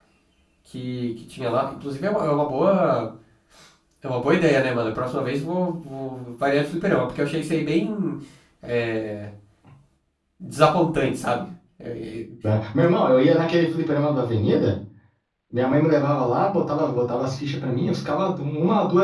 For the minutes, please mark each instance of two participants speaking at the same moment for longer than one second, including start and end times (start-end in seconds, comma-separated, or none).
none